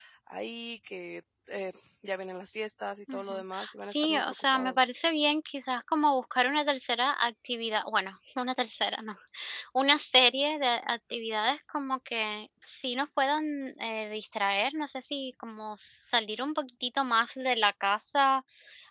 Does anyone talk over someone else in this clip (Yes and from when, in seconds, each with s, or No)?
Yes, from 3.1 s